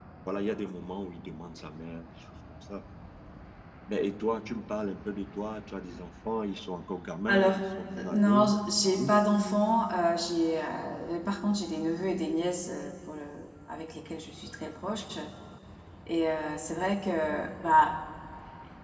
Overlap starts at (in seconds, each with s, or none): 7.3 s